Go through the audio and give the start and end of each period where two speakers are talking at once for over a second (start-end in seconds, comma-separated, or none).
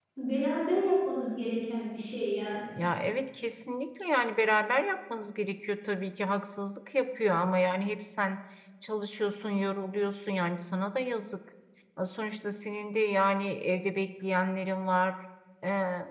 none